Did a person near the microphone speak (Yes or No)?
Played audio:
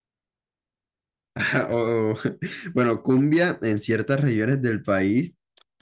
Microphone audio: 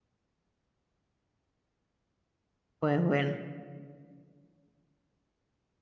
Yes